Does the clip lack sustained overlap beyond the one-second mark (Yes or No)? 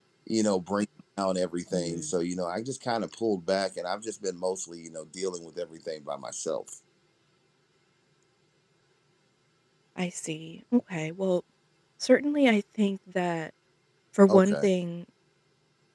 Yes